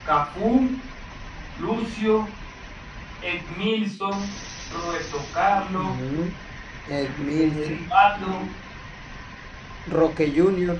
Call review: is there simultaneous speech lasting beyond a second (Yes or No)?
No